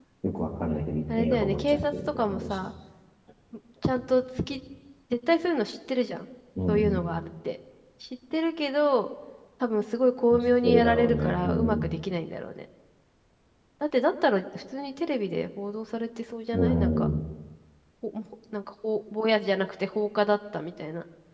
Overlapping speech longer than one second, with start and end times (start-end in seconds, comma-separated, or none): 1.2-2.6, 10.3-11.9